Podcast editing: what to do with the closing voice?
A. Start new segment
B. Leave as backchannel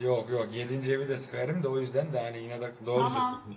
A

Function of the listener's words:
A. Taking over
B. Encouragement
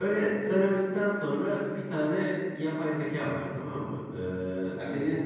B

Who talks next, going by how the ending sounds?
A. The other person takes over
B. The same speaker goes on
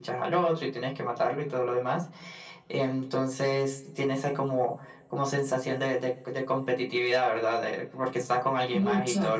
B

